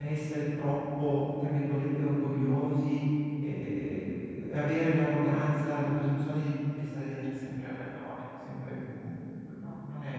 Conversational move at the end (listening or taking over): listening